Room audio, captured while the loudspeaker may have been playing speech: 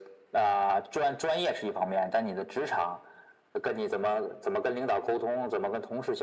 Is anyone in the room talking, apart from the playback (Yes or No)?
No